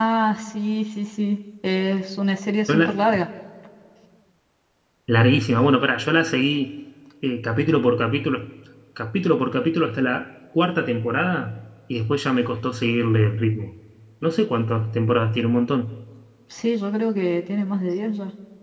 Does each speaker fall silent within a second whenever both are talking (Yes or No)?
Yes